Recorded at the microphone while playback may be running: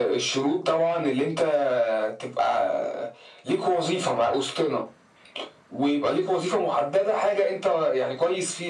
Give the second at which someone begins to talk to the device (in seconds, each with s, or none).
none